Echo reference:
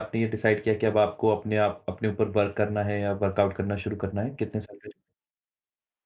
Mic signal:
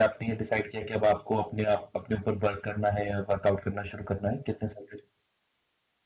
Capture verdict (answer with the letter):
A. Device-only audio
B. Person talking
A